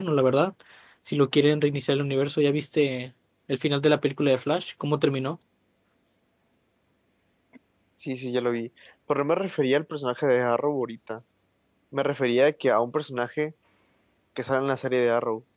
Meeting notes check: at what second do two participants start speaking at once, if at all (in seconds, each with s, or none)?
none